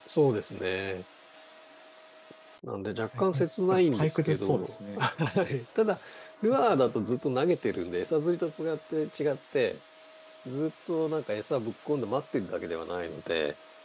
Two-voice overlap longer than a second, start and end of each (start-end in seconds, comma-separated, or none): 3.2-5.1